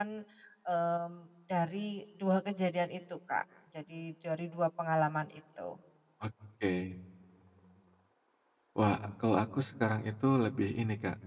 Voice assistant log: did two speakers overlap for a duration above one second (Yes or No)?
No